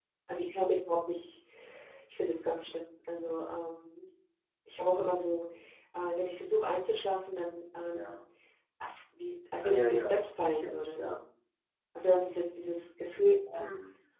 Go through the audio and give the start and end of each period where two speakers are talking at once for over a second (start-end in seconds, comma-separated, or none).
9.6-11.2